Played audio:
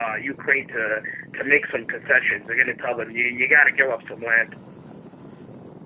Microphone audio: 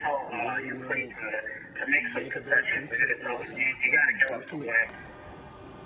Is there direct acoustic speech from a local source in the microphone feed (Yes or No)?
Yes